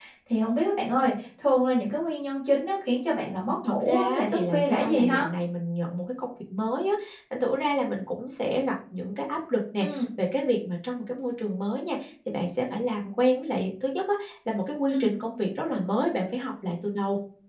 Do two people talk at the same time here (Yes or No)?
Yes